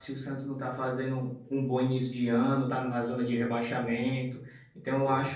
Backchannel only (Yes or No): Yes